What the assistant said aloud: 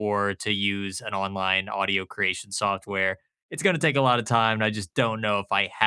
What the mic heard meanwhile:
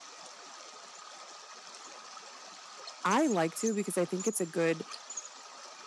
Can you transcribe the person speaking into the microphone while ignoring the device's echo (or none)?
I like to because I think it's a good